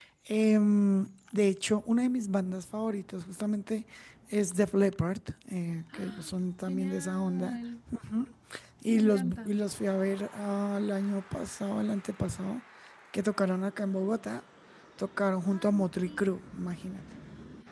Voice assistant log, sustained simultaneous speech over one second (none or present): present